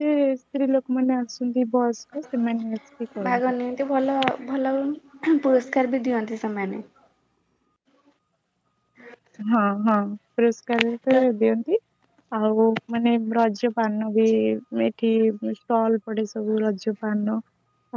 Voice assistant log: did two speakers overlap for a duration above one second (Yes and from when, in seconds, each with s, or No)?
No